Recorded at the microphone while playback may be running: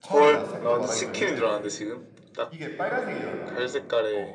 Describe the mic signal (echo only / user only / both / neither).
both